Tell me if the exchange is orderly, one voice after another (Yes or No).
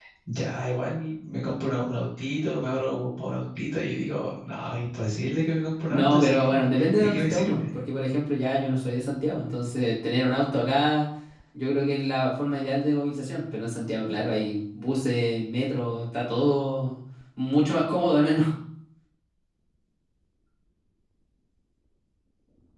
No